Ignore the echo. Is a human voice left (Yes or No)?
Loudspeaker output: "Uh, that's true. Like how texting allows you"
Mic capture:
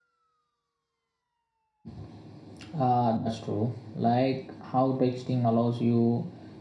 No